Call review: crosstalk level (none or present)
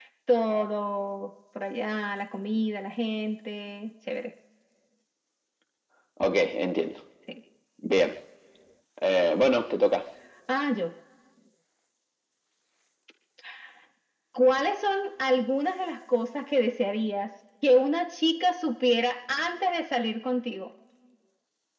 none